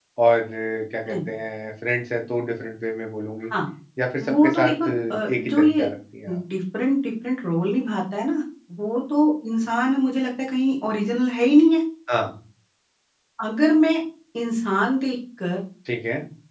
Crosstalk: present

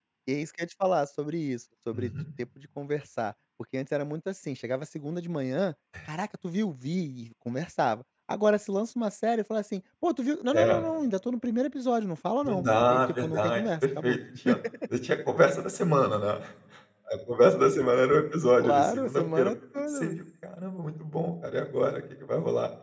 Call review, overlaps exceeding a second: present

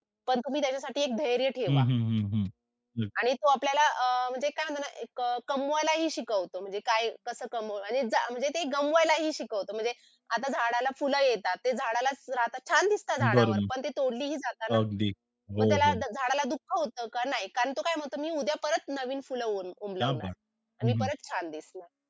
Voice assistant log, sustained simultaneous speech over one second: none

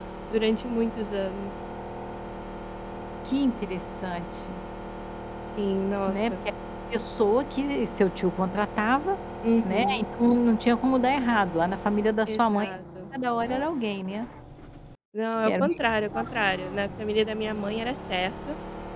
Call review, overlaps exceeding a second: none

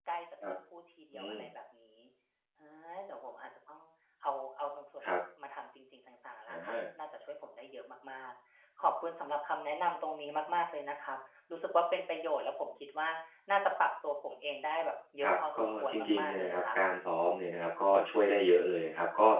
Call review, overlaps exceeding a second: present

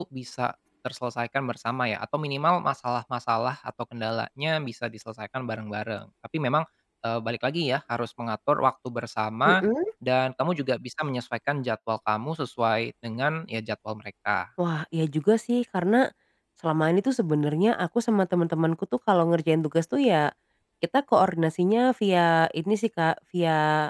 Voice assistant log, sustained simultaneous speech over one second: none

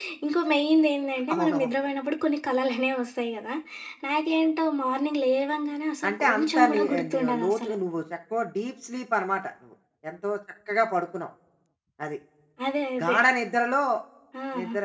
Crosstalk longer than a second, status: present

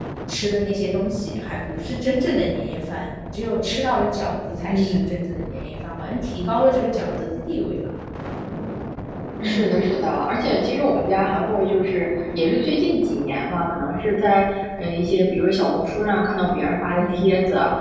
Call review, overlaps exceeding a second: none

